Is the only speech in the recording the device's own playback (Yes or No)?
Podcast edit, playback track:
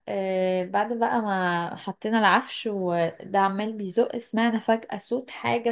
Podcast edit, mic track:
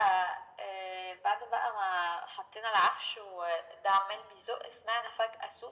Yes